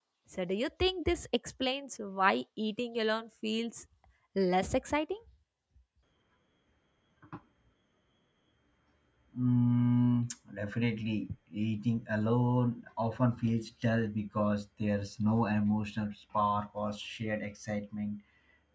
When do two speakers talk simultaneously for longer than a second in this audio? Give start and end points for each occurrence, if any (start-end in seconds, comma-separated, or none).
none